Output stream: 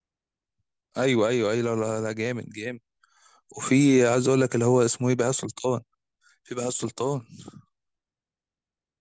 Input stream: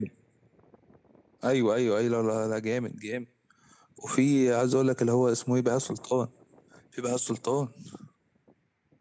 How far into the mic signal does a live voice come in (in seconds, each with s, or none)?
none